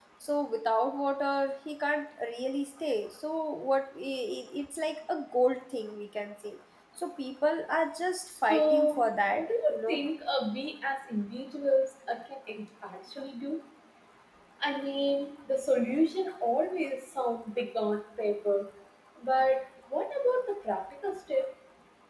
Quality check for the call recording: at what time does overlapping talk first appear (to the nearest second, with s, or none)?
8 s